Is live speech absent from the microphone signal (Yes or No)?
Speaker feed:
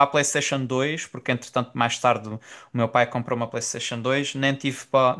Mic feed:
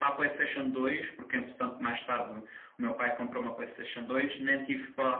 Yes